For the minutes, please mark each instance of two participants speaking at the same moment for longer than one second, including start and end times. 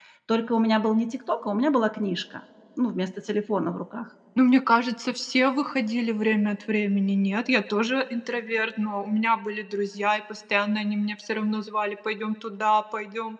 none

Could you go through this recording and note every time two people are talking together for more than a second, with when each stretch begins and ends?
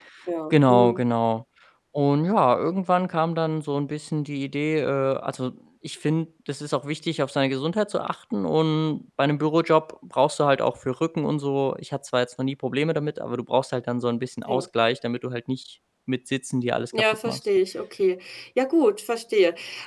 none

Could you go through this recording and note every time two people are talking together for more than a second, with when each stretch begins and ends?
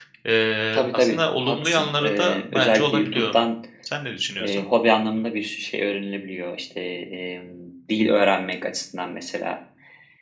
0.7-3.2

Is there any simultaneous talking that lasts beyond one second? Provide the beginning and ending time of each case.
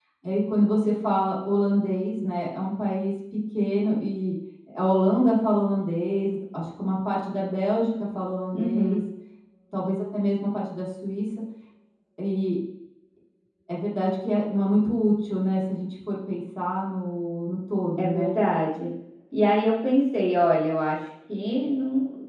none

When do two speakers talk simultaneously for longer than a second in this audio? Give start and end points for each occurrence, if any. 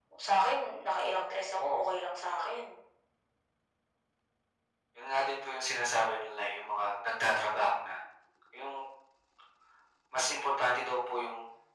none

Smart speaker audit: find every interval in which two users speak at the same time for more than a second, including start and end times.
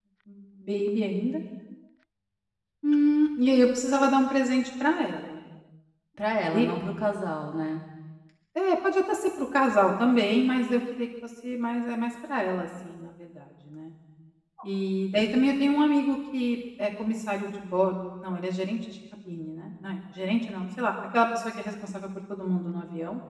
none

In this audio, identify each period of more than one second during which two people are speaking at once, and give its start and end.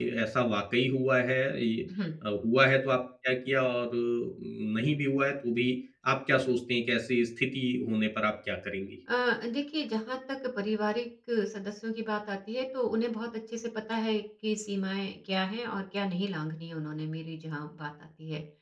none

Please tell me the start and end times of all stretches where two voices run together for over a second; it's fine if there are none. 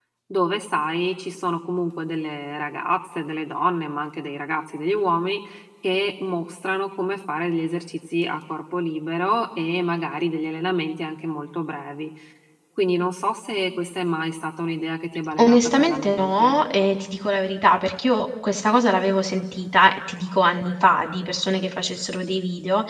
15.4-16.6

